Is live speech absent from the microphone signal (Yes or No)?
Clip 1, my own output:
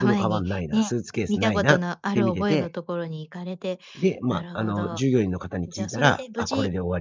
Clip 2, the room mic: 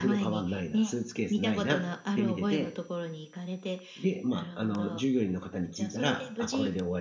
Yes